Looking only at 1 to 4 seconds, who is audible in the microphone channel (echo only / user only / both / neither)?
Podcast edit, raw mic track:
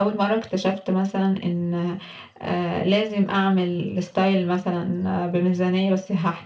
echo only